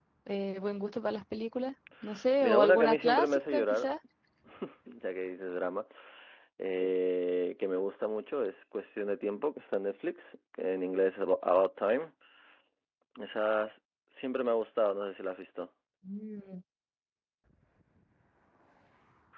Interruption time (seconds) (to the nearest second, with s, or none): 2 s